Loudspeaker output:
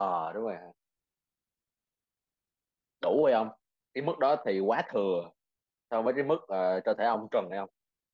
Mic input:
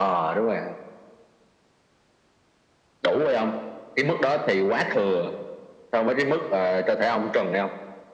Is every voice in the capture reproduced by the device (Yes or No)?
Yes